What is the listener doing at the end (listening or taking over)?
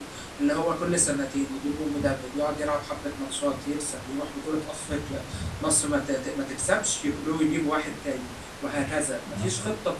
listening